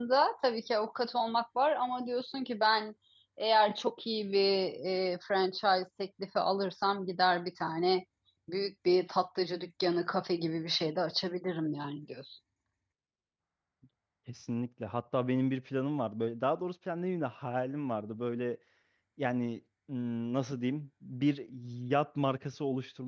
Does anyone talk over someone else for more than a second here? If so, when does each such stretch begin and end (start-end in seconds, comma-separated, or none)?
none